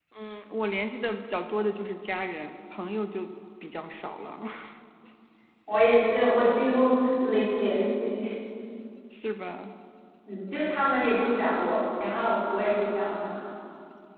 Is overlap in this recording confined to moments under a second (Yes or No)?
Yes